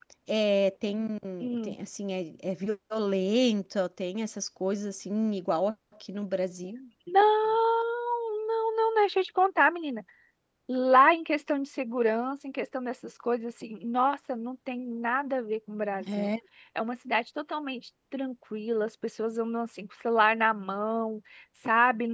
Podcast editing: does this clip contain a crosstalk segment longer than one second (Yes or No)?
No